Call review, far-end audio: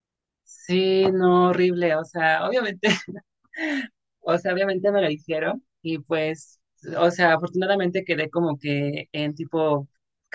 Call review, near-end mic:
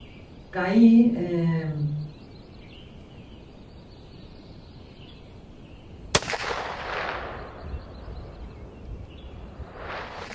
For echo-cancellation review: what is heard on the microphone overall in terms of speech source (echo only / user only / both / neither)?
user only